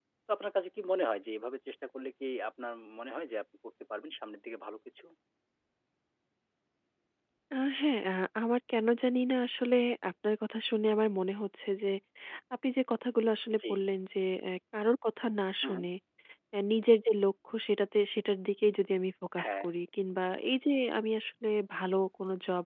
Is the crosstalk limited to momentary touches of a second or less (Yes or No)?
Yes